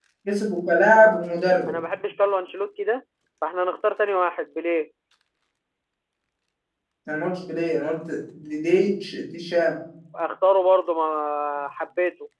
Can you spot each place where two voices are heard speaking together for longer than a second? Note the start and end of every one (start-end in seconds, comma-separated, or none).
none